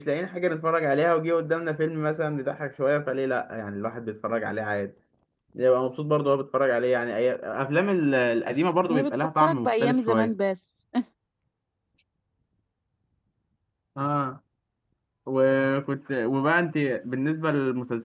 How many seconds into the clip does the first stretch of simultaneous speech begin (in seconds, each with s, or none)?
8.9 s